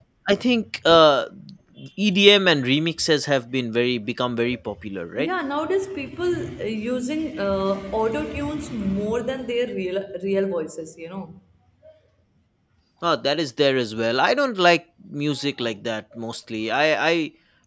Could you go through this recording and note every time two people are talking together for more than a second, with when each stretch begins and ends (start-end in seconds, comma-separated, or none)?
none